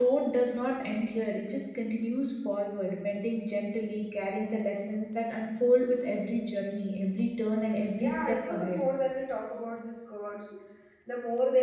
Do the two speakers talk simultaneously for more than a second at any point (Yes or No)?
Yes